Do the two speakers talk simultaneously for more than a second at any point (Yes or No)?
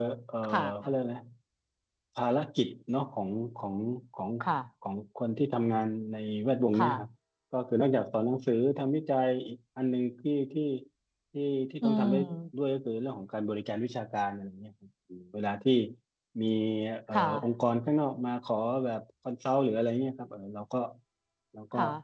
No